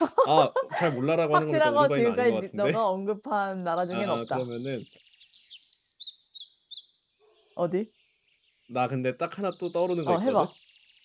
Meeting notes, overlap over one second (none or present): present